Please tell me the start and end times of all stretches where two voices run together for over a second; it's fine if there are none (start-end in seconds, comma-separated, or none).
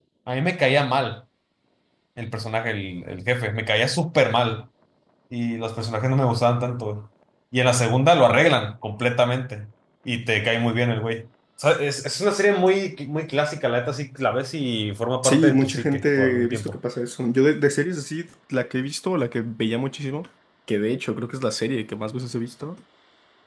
15.2-16.8